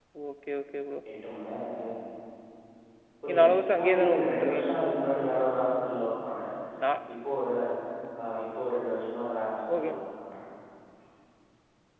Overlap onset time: 3.3 s

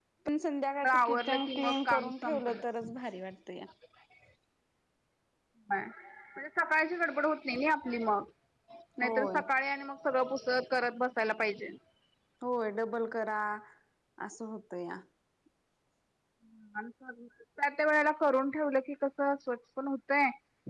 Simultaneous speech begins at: 0.8 s

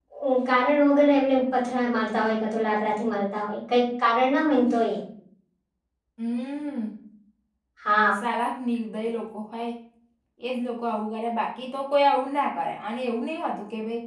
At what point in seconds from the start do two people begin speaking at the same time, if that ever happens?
none

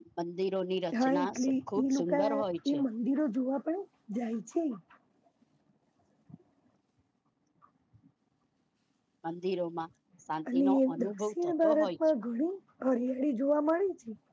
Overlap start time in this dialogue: 1.0 s

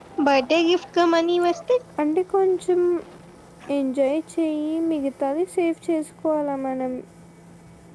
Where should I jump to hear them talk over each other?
none

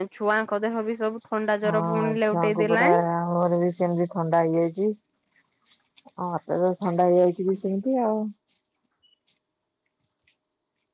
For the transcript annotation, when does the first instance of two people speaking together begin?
1.6 s

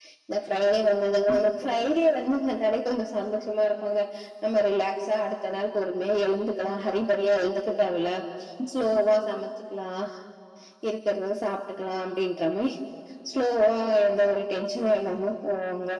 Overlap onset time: none

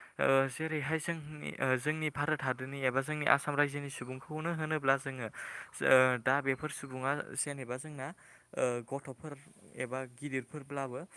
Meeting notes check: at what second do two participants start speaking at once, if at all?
none

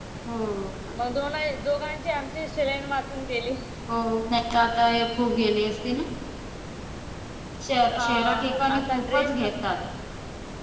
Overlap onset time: 8.0 s

